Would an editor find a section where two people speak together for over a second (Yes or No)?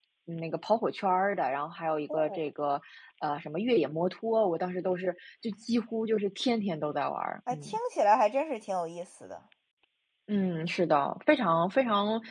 No